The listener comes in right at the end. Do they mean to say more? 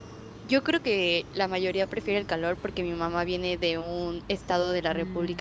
No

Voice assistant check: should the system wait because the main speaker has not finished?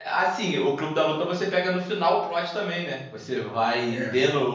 Yes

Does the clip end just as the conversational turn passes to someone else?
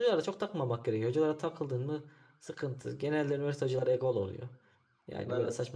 No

